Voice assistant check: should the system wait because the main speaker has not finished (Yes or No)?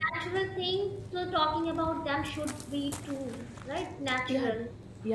No